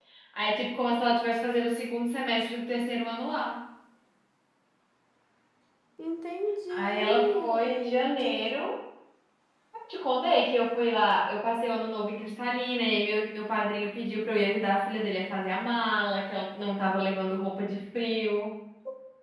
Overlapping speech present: Yes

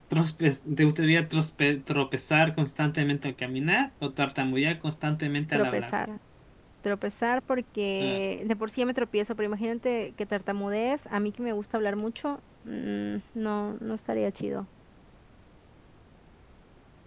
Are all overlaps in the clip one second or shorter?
Yes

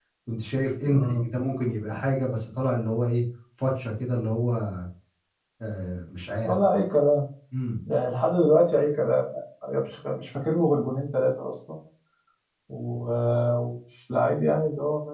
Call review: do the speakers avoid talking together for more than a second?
Yes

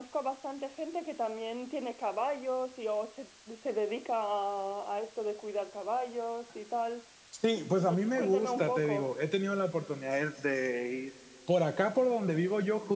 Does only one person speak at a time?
No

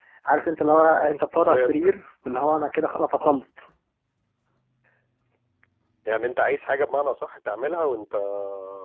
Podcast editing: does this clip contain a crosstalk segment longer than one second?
No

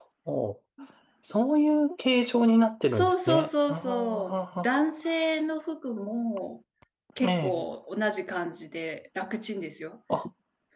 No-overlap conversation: No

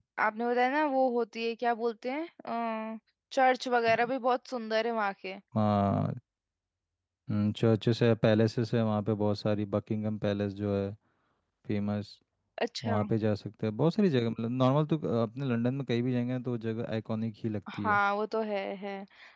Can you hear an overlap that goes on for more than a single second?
No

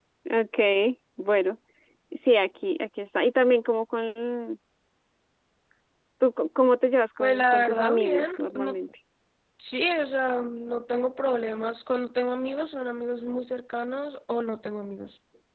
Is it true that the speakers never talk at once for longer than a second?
No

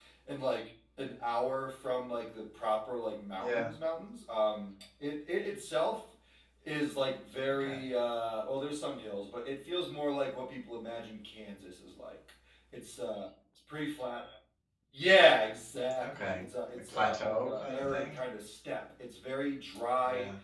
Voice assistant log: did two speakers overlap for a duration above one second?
Yes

